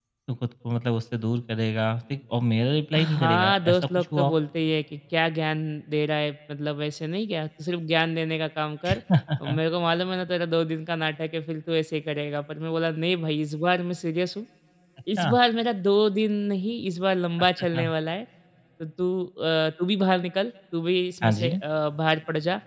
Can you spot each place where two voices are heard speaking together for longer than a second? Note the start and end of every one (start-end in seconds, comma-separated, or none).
3.0-4.3